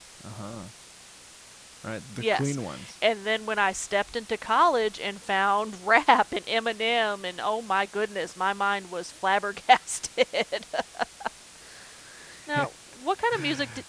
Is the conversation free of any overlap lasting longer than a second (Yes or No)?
Yes